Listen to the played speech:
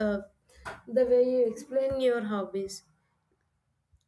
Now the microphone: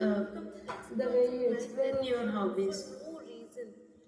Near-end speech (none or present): present